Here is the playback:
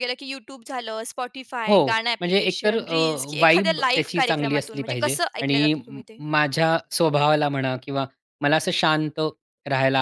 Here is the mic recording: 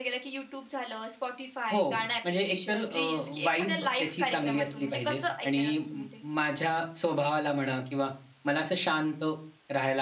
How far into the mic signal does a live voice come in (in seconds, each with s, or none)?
none